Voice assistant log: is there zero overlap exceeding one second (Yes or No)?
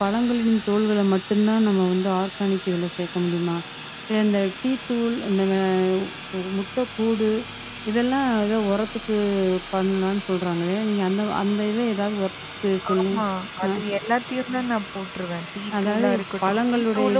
No